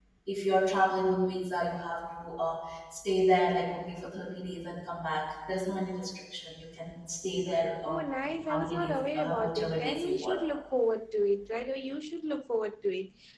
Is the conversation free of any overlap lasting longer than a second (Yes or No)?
No